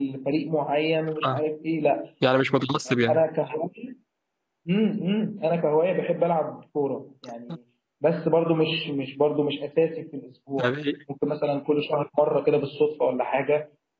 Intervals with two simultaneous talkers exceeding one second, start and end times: none

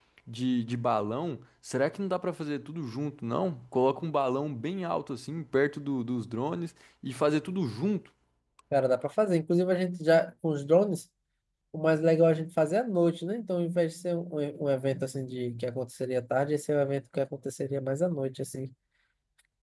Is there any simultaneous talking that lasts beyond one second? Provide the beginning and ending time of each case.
none

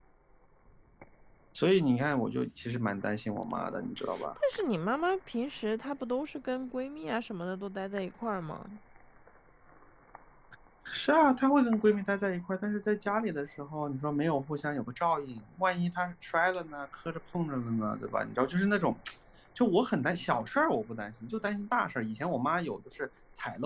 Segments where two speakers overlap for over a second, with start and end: none

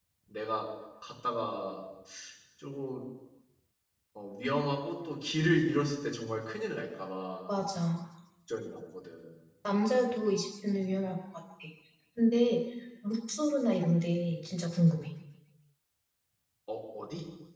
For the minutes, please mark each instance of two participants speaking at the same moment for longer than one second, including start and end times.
none

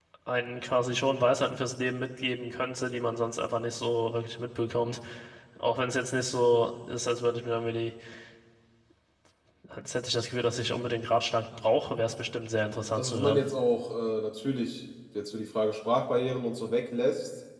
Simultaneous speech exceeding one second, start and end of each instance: none

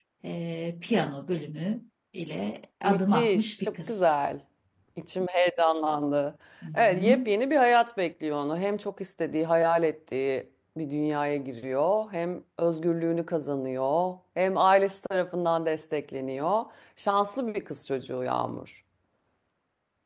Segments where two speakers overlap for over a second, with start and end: 2.8-4.1

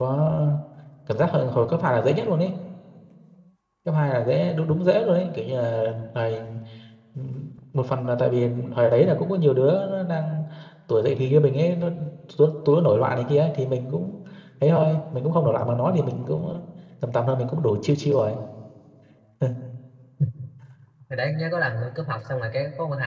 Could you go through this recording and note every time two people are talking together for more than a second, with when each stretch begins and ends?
none

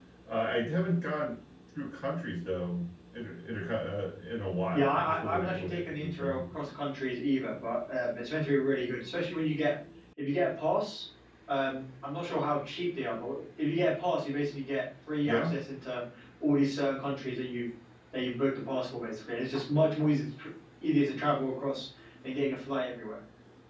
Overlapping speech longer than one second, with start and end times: 4.7-6.4

